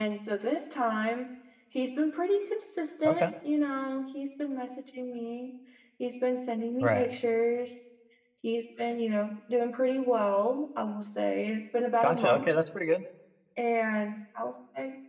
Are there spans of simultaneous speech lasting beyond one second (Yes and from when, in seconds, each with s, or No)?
No